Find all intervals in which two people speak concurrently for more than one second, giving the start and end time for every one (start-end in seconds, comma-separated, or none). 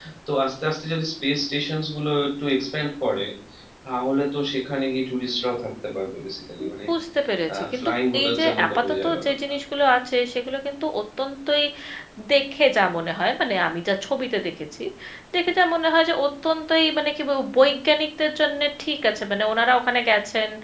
7.8-9.3